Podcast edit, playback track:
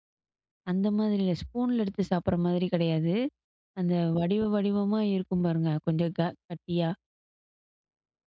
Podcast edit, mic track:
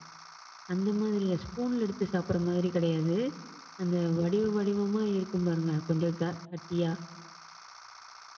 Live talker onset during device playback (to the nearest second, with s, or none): none